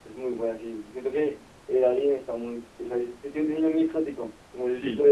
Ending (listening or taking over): listening